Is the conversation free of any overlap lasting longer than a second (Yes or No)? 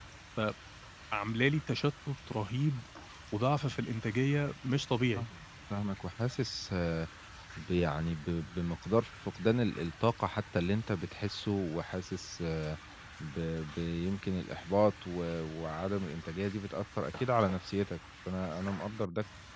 Yes